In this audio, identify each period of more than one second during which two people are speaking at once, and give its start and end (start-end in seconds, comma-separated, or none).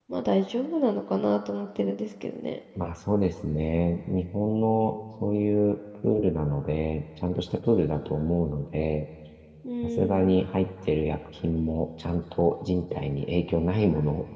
none